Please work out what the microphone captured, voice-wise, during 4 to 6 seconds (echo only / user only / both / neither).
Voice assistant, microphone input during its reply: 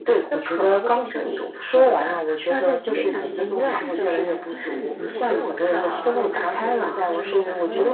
both